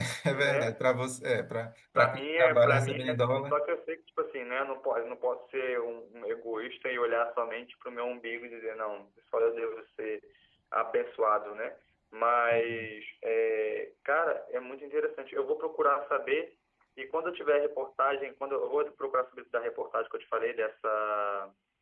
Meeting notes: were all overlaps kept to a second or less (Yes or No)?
No